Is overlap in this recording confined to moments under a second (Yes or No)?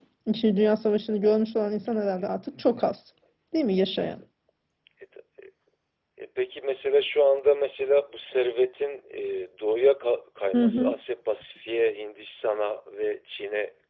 Yes